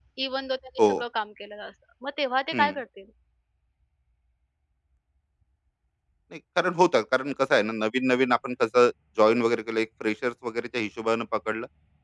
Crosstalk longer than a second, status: none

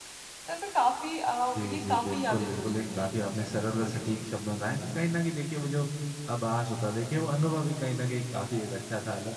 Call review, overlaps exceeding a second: present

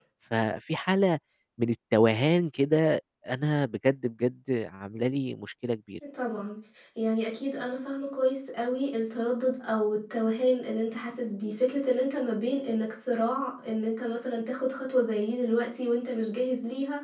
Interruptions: none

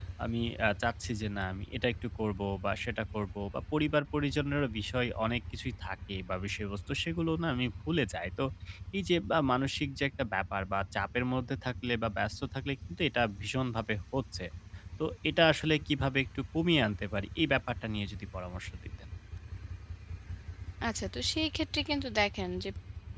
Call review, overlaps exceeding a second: none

